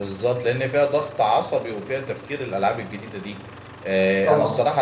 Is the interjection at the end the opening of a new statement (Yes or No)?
No